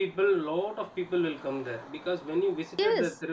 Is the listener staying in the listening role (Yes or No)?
Yes